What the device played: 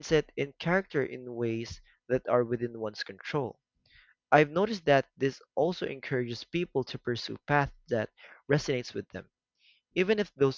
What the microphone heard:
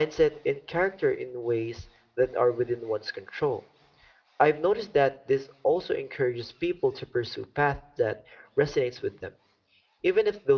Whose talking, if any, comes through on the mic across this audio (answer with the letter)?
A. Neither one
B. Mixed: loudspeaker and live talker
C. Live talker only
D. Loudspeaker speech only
D